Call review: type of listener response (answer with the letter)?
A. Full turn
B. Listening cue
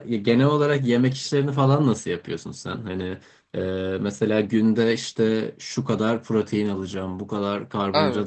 B